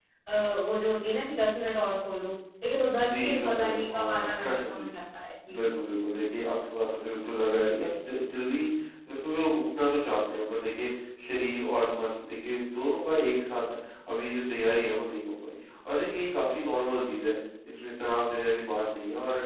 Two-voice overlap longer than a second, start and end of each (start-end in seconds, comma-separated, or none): 3.0-4.9